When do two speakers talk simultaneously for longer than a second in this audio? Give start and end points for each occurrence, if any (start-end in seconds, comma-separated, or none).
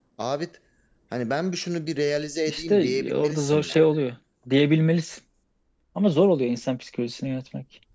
2.5-3.8